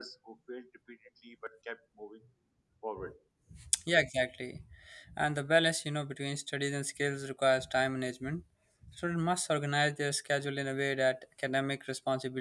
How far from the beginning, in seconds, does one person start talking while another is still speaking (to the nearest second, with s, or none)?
none